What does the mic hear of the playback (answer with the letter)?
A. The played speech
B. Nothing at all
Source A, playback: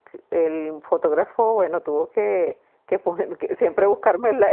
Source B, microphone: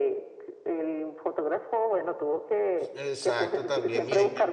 A